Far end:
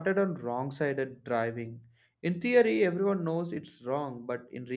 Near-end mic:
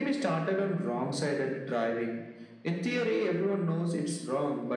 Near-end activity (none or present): none